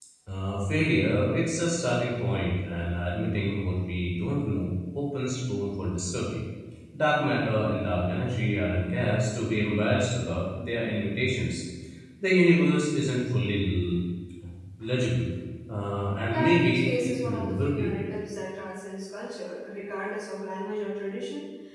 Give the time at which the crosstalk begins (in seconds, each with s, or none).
16.3 s